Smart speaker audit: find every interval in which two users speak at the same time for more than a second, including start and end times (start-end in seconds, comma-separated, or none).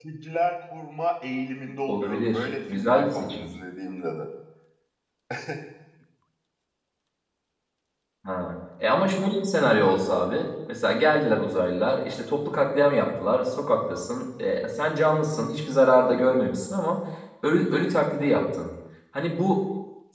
1.9-3.5